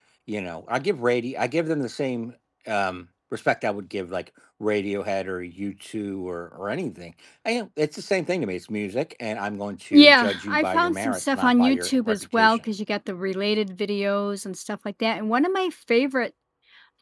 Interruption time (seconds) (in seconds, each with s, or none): 9.9 s